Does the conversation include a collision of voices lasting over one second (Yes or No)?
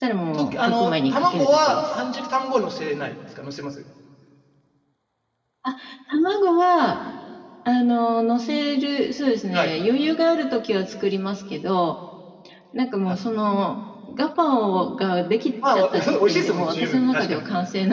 Yes